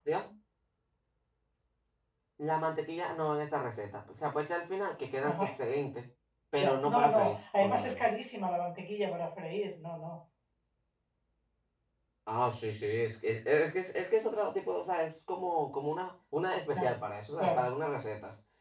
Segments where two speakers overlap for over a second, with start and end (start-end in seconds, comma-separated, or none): 6.6-8.0